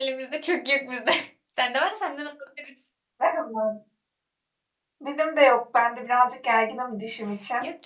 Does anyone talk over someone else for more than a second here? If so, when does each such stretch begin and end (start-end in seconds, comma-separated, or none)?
none